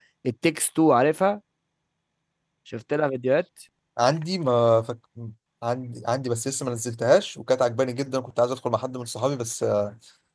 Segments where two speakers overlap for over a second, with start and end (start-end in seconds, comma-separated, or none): none